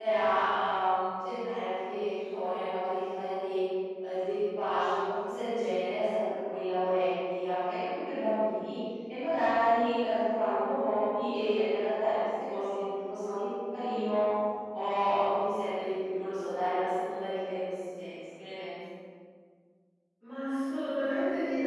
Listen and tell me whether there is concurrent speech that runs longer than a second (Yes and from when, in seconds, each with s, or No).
No